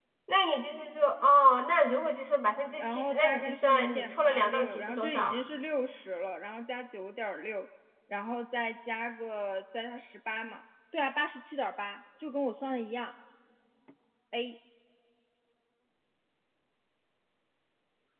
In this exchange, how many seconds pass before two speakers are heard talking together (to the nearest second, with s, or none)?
3 s